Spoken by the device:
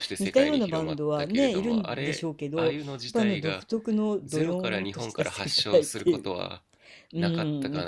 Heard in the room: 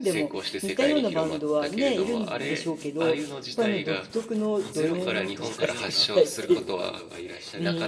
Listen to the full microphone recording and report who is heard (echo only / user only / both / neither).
both